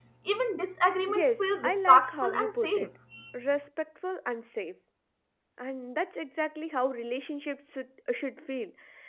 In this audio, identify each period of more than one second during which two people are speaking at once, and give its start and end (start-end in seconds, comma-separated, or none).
1.1-2.9